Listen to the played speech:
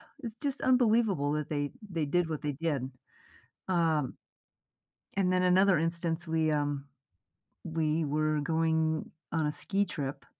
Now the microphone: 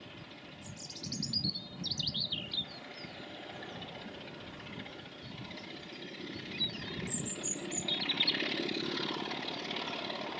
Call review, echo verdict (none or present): none